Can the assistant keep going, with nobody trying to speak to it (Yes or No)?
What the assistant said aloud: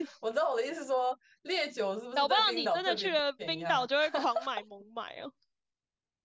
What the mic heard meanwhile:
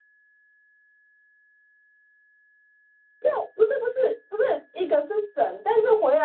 No